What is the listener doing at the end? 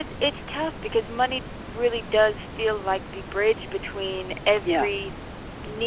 listening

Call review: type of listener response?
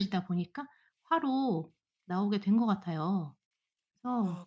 taking over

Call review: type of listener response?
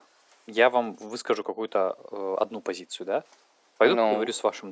listening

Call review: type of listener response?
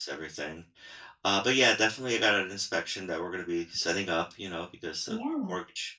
listening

